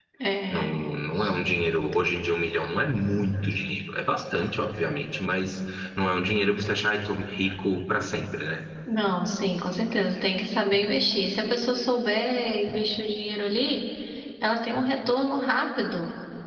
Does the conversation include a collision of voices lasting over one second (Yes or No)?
No